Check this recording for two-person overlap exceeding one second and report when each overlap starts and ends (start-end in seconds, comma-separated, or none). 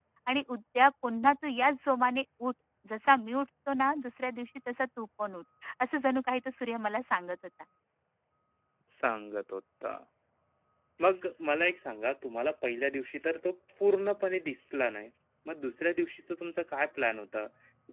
none